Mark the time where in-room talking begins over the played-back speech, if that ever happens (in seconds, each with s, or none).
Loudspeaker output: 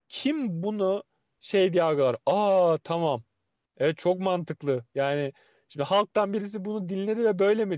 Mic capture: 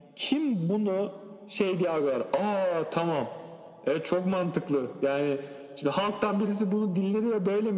none